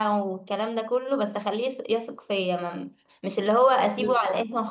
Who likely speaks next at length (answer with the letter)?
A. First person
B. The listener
A